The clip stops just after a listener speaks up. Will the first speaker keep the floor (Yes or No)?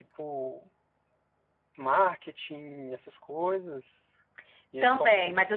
No